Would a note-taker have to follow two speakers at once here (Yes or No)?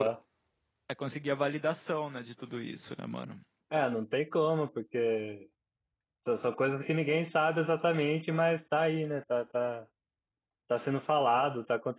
No